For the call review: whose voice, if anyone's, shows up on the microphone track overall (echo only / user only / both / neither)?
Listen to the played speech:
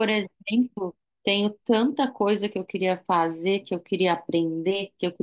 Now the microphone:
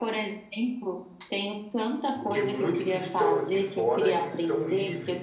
both